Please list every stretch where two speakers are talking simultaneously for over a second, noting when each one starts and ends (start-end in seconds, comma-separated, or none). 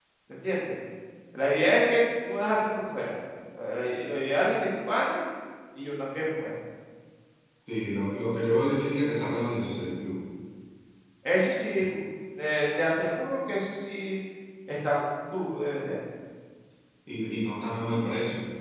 none